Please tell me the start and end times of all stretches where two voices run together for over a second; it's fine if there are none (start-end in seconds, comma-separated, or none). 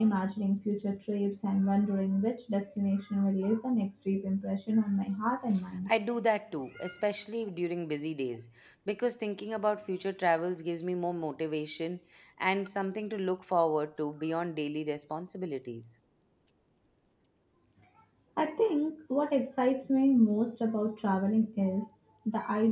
none